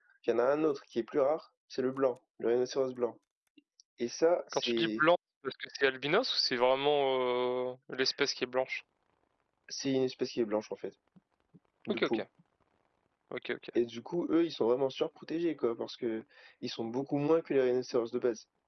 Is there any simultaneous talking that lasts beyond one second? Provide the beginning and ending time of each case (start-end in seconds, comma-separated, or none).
none